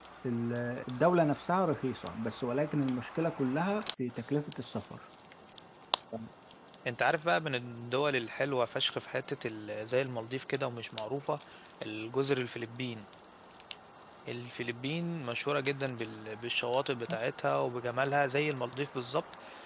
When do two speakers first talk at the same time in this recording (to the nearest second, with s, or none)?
none